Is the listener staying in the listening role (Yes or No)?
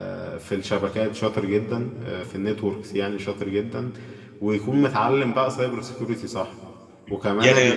No